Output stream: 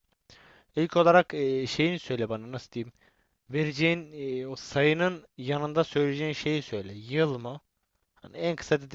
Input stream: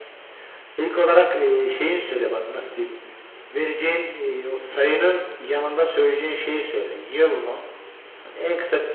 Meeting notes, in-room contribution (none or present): none